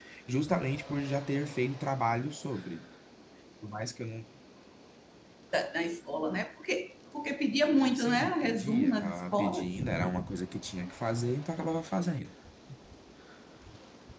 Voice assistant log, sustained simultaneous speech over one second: present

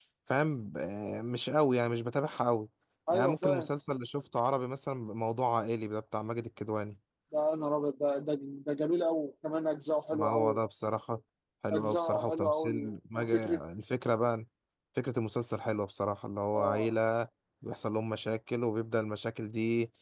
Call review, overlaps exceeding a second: present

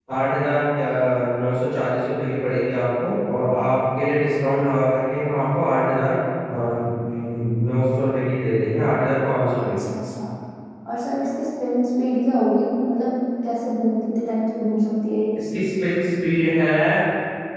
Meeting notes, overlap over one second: none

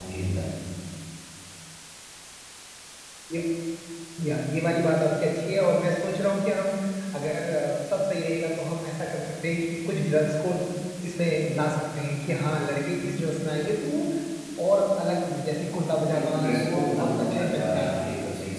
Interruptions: present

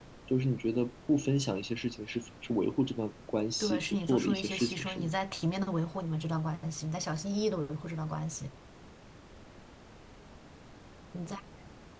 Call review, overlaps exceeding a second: present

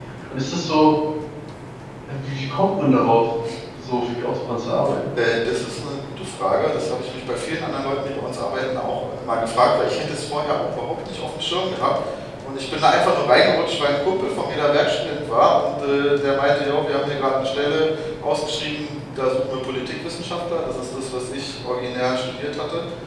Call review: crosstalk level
none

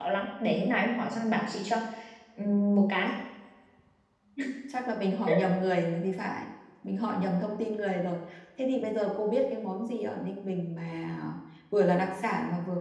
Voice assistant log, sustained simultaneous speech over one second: none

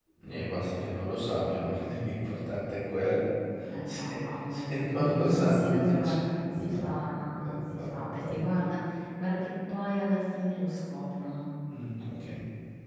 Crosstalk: present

